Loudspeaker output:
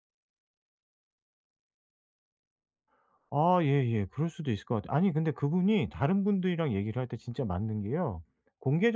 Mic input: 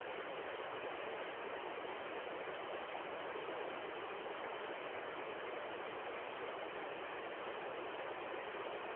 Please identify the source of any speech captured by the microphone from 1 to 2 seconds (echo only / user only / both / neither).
neither